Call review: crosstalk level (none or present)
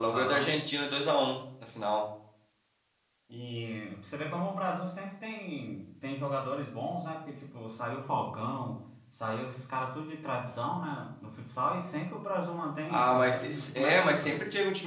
present